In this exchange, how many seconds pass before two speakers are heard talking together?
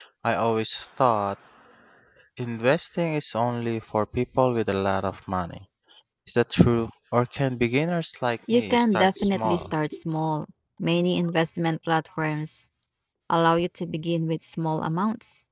8.5 s

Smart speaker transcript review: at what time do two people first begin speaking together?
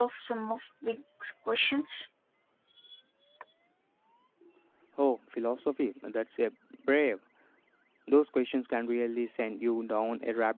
none

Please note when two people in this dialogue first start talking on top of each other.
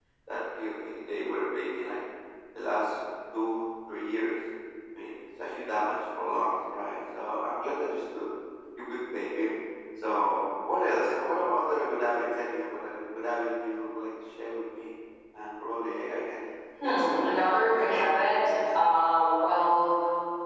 16.8 s

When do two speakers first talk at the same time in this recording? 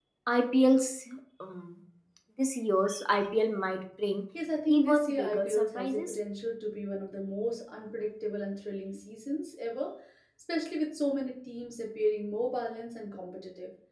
4.7 s

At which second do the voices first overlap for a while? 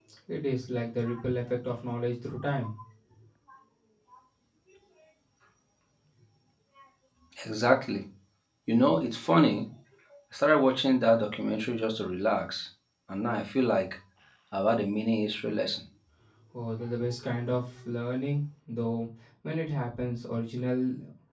none

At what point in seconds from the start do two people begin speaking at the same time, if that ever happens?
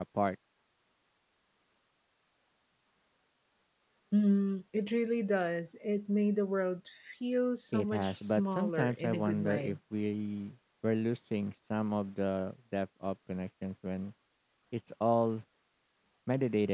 7.7 s

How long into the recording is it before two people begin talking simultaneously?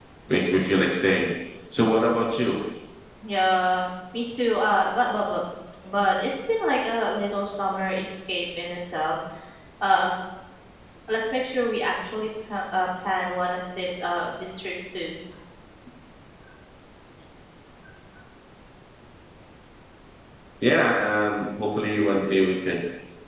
none

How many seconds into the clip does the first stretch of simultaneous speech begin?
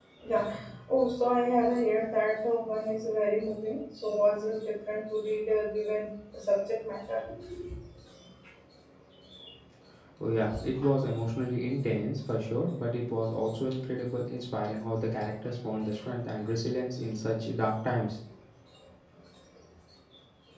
none

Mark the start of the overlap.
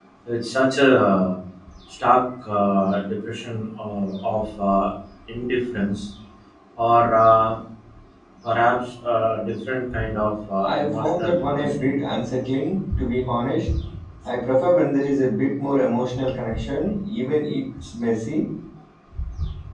10.6 s

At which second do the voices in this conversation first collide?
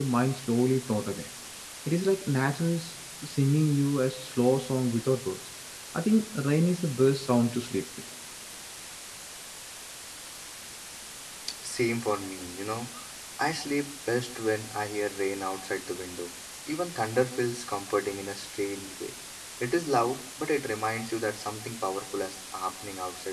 none

